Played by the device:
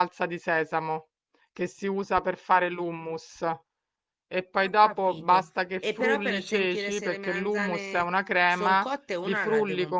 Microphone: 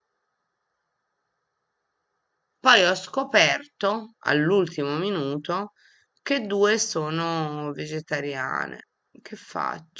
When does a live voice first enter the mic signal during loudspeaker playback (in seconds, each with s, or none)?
2.6 s